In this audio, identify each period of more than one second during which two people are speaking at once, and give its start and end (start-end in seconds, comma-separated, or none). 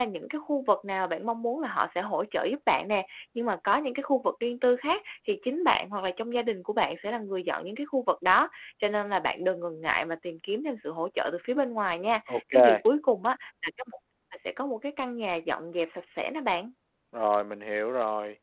none